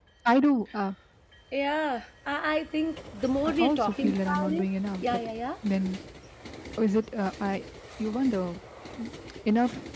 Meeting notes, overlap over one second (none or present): present